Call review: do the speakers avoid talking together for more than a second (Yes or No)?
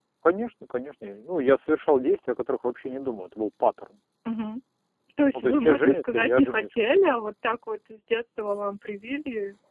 No